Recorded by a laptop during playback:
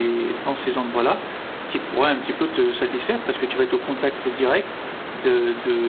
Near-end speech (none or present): none